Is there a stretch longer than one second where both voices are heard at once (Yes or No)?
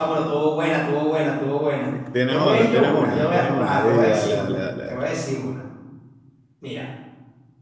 Yes